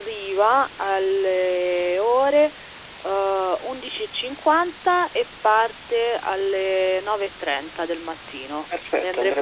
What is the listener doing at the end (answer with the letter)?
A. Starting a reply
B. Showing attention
A